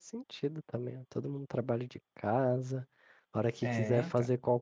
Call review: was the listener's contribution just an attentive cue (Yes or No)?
Yes